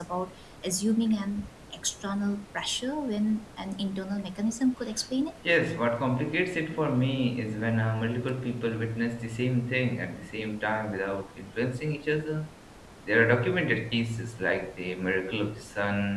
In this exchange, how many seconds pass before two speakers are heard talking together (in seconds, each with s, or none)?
none